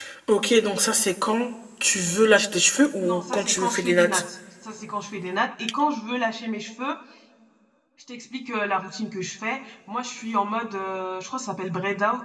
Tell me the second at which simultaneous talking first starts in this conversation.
3.0 s

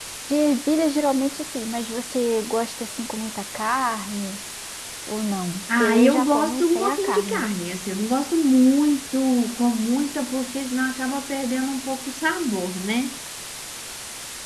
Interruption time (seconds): 5.8 s

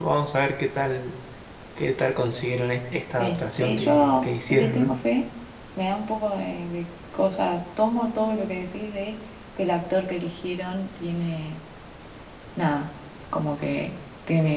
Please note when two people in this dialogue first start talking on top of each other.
3.2 s

